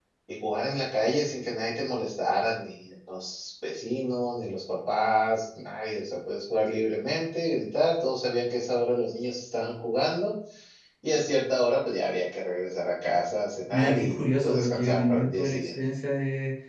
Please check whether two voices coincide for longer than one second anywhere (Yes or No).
Yes